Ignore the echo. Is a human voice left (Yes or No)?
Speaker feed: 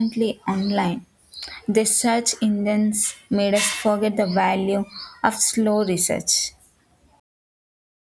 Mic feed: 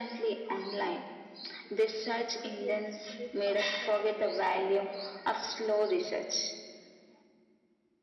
Yes